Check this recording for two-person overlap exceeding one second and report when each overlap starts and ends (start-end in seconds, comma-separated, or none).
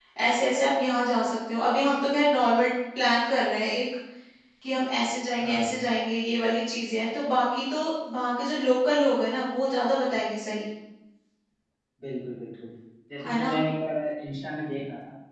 none